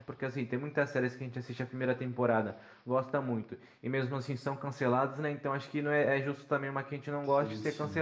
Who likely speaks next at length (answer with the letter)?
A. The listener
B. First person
B